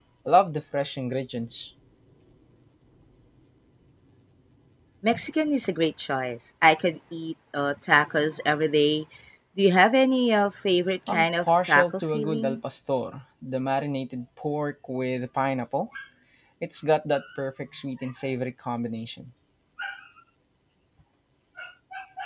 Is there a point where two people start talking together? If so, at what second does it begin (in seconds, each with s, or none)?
11.1 s